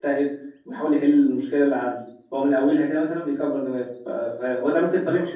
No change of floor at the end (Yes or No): Yes